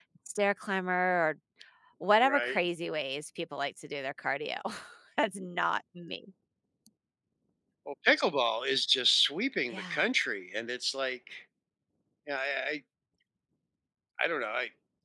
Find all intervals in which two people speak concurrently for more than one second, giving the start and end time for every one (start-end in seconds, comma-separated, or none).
none